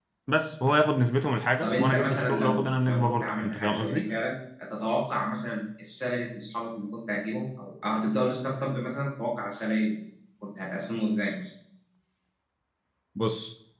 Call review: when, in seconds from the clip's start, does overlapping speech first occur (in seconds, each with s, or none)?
1.6 s